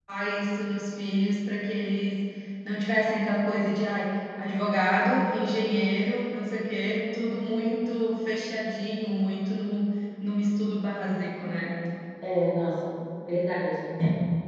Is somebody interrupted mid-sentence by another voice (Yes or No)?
No